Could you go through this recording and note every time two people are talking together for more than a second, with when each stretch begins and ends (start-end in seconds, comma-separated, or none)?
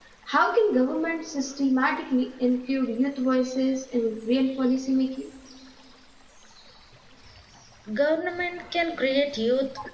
none